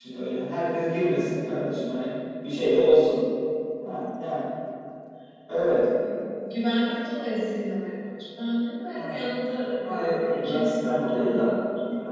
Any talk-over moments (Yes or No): Yes